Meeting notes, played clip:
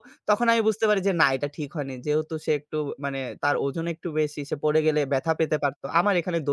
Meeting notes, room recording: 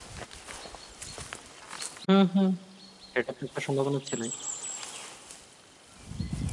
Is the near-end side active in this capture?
Yes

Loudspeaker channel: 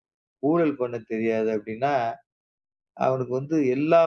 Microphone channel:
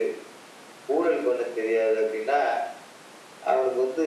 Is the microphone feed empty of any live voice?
Yes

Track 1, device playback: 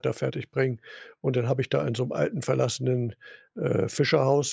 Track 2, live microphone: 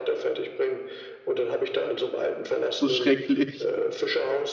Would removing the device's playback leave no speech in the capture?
No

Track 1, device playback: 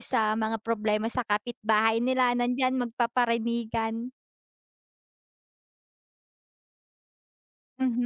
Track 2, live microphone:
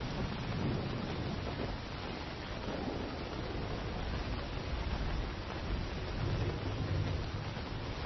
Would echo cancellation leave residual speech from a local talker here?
No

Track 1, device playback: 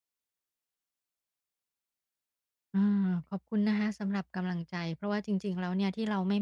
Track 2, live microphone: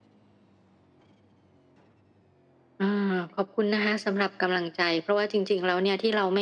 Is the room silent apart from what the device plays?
Yes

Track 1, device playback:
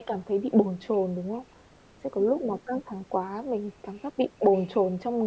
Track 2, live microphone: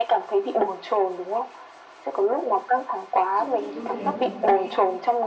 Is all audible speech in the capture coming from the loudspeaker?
No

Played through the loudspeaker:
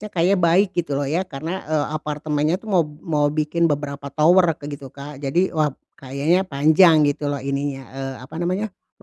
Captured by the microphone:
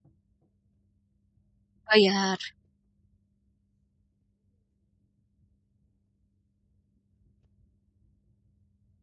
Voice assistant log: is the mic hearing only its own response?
No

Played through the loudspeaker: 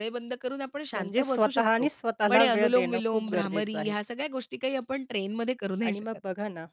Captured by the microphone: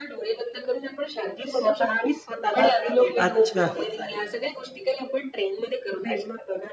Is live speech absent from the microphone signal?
No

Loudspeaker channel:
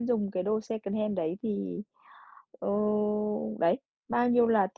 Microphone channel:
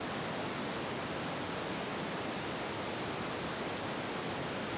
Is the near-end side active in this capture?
No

